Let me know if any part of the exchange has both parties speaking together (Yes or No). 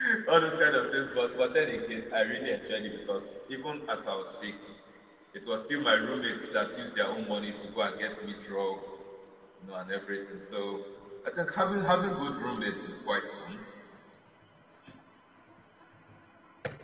No